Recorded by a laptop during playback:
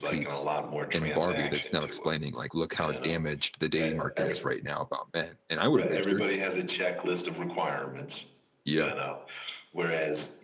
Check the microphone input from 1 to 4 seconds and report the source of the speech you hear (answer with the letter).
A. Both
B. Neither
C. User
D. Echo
A